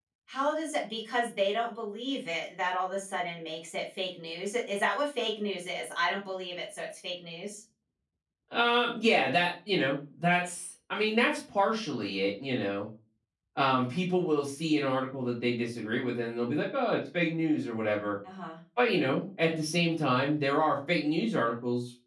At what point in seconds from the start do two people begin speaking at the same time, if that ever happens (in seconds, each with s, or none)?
none